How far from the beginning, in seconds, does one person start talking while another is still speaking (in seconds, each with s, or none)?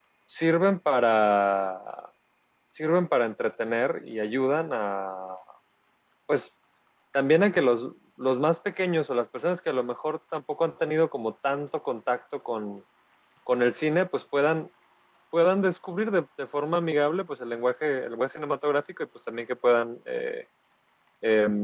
none